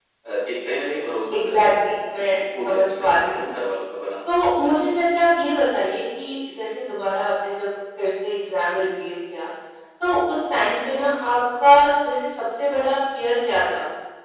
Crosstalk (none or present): present